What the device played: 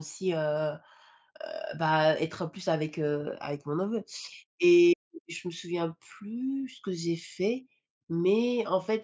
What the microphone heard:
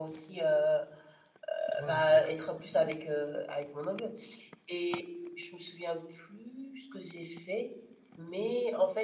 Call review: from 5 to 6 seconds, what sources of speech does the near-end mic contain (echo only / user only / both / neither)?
echo only